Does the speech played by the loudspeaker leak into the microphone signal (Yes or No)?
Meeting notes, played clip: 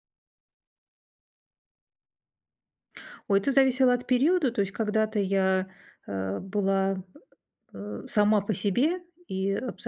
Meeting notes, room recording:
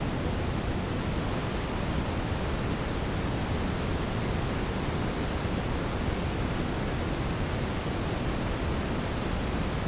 No